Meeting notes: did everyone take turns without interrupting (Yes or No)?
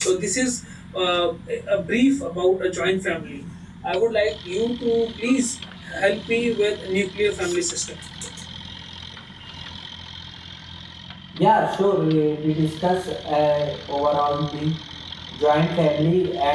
Yes